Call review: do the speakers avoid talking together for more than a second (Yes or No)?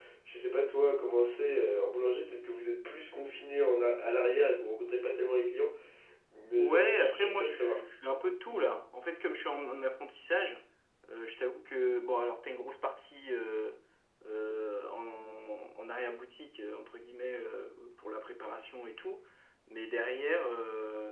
No